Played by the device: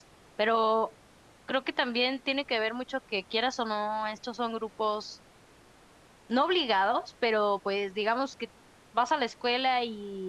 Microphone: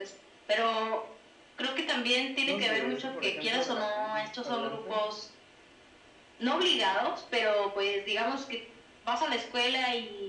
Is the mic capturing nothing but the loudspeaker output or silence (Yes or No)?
No